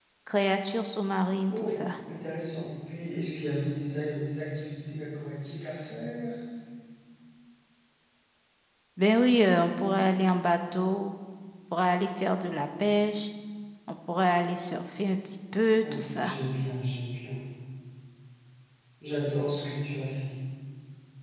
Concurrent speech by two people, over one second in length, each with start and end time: none

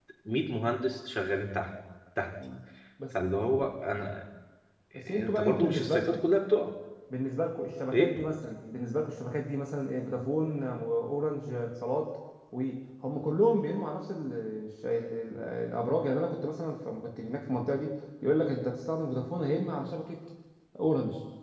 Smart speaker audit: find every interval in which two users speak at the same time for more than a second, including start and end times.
5.0-6.2

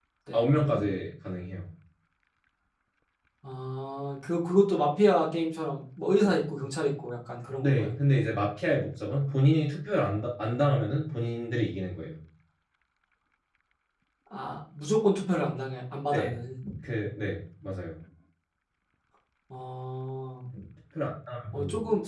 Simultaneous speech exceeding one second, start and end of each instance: none

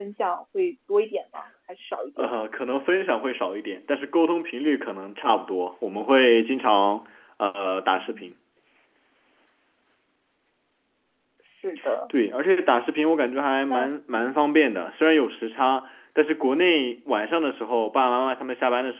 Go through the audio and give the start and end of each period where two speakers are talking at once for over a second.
none

